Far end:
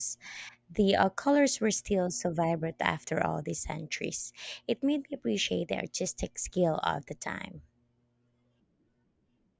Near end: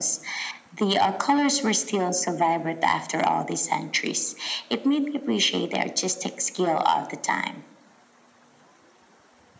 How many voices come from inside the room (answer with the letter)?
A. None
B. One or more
A